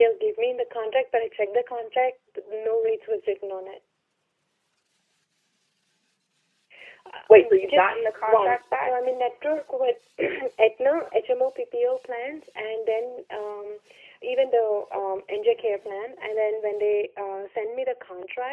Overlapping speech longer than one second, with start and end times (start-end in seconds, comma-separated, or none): 7.3-8.9